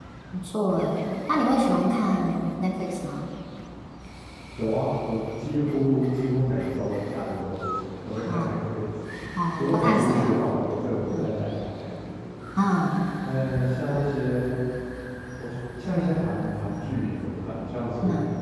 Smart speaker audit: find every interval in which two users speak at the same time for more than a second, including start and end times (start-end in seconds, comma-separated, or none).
9.6-11.3